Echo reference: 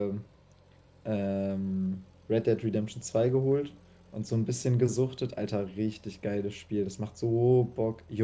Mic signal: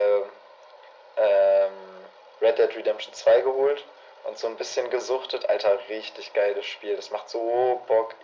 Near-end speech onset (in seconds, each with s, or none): none